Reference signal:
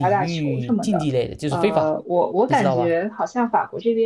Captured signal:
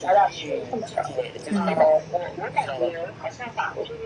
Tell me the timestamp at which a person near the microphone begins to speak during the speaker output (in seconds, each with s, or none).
1.5 s